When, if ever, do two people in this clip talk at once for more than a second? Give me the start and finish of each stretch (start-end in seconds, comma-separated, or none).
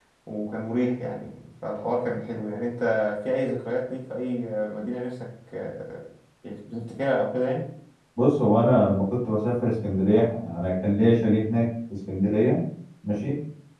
none